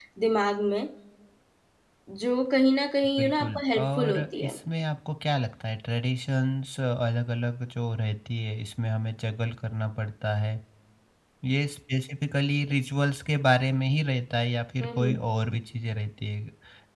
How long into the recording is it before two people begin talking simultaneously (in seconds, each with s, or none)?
3.2 s